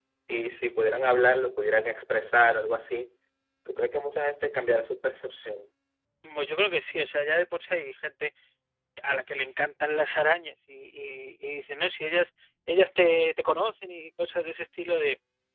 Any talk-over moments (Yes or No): No